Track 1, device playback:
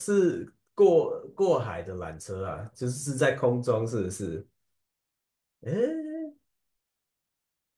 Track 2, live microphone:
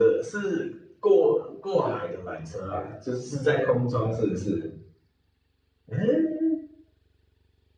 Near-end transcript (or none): none